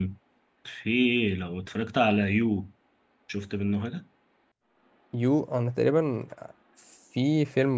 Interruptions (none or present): none